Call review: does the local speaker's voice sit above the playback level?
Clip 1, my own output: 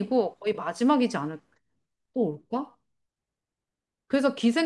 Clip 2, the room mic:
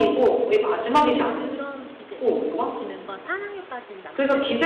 No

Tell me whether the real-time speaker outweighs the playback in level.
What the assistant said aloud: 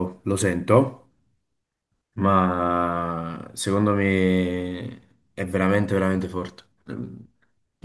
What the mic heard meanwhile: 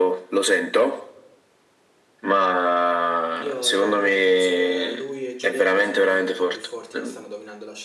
No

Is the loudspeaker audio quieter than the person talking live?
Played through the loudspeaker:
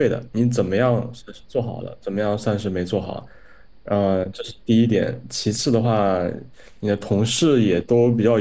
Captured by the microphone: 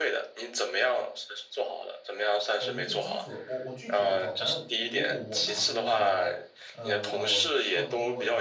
No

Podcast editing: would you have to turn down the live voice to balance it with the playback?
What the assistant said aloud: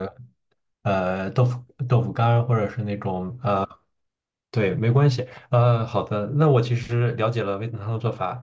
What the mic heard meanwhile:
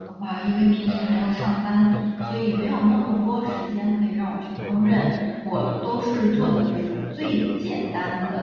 Yes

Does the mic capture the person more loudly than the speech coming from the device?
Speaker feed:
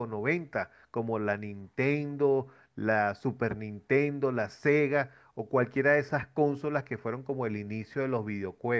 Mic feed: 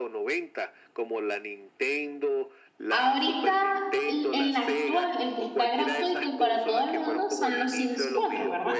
Yes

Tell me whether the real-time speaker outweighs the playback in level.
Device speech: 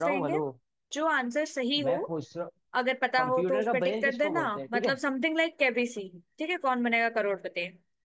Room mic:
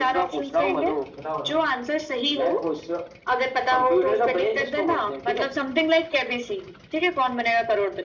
No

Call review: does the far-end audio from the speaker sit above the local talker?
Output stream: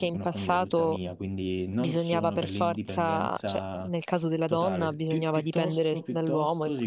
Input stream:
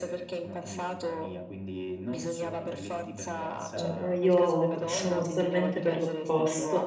No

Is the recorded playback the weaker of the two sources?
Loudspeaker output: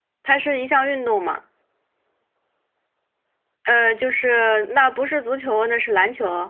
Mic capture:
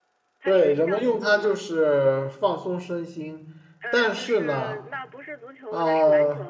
Yes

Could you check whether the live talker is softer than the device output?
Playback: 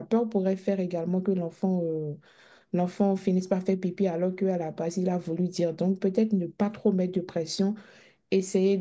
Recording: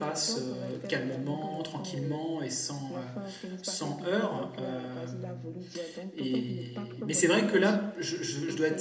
No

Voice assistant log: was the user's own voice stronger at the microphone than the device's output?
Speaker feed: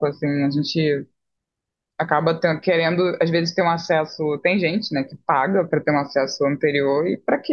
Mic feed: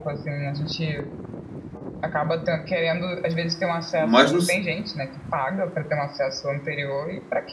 Yes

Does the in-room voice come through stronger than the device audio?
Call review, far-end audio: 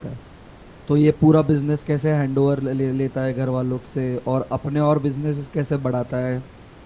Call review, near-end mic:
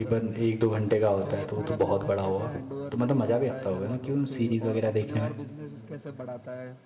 Yes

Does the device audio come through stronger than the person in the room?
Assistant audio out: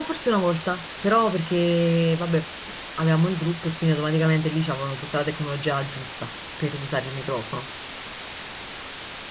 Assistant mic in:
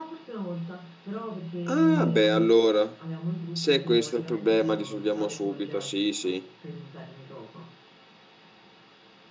No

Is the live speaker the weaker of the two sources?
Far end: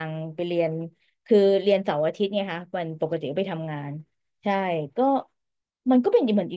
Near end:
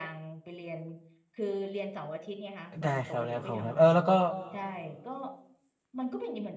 No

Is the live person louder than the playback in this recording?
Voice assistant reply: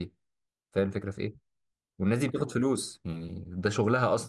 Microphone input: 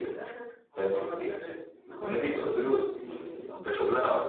No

